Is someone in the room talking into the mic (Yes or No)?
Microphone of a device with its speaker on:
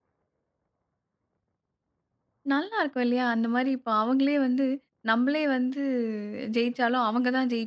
Yes